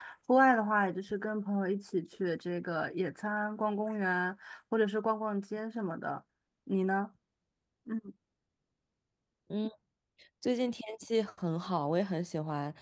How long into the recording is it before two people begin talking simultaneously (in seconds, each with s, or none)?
none